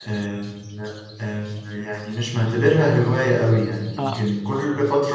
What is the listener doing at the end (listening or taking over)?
listening